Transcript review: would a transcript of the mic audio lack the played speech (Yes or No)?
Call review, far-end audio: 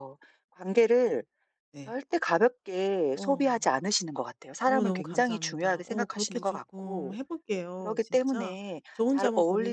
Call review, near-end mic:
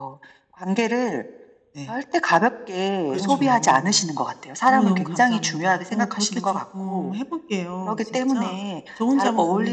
No